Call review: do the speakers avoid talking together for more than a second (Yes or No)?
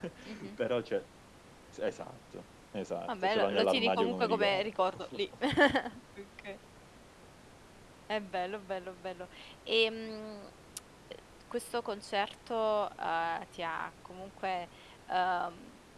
No